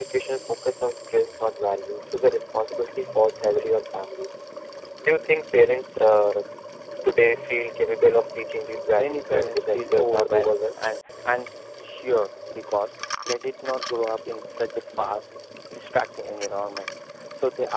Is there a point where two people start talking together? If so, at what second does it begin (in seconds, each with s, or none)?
8.9 s